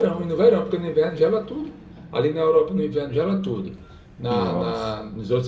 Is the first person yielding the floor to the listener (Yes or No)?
No